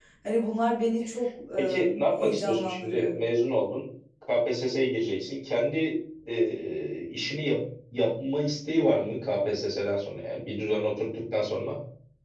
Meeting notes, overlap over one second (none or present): present